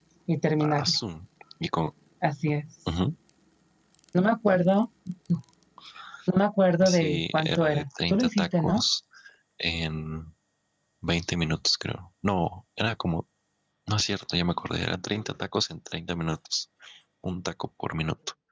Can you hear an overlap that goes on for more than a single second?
Yes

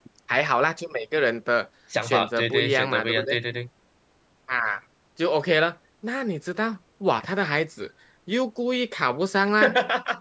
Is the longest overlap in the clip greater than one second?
Yes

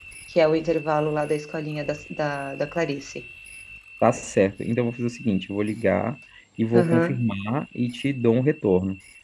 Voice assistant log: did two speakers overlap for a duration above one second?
No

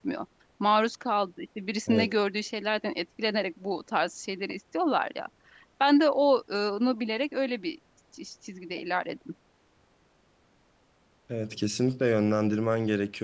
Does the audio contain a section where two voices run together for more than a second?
No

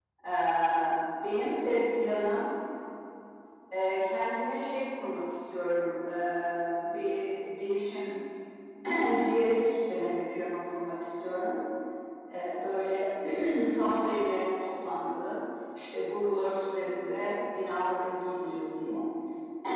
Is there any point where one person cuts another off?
No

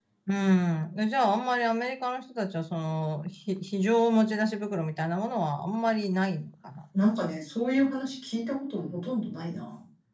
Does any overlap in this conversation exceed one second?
No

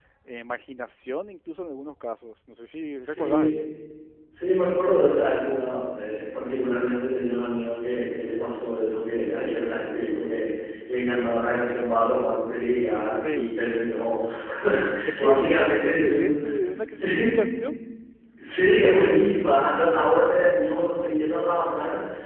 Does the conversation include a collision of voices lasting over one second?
Yes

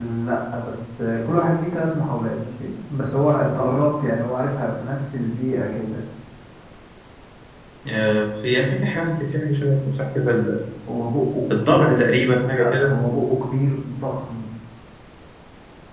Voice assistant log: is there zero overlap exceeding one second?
No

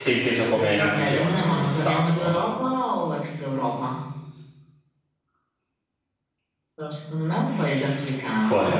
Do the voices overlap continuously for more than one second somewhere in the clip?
Yes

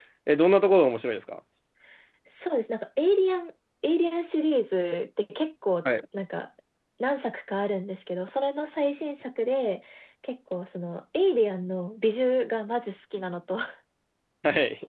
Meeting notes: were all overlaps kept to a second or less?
Yes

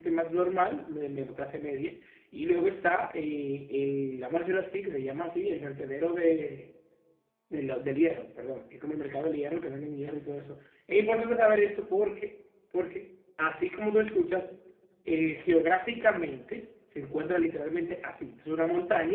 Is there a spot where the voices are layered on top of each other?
No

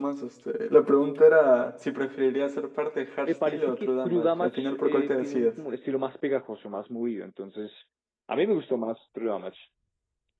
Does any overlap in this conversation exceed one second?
Yes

